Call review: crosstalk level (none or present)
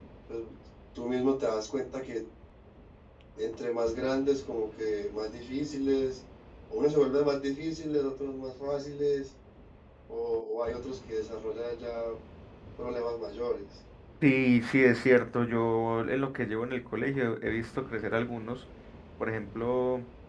none